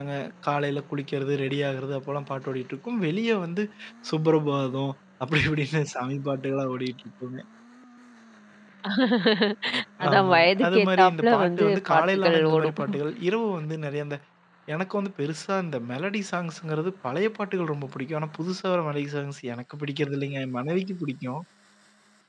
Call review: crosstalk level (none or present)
present